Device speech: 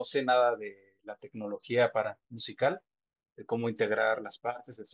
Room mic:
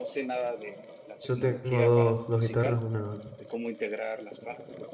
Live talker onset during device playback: 1.2 s

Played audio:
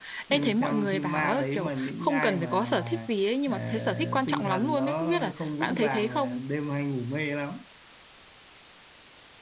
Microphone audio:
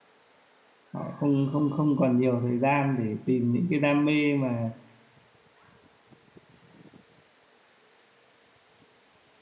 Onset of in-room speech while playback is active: 0.9 s

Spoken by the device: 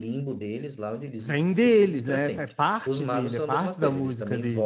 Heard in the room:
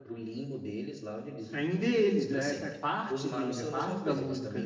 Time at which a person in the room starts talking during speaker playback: none

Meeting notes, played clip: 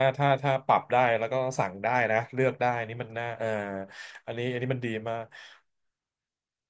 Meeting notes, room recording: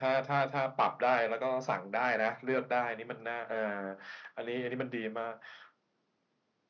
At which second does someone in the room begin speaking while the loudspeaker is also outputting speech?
none

